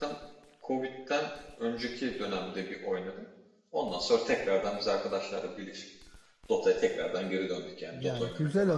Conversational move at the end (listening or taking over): taking over